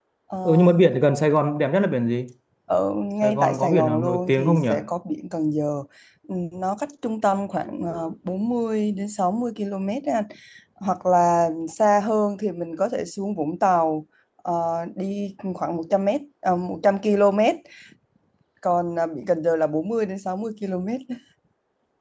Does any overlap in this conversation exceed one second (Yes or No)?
Yes